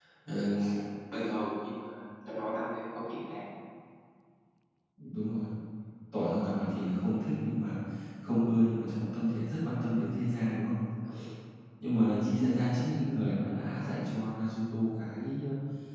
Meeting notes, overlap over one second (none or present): none